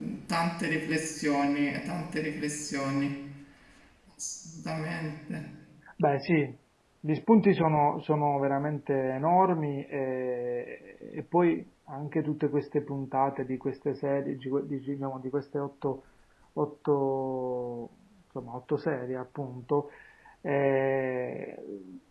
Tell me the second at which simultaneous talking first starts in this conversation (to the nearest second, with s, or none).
none